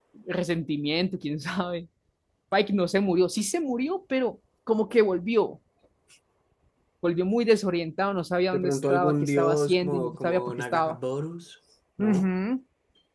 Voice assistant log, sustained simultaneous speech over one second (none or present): present